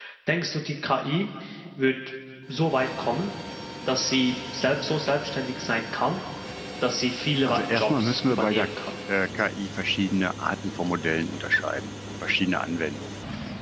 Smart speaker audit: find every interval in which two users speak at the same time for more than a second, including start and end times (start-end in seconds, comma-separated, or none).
7.4-8.9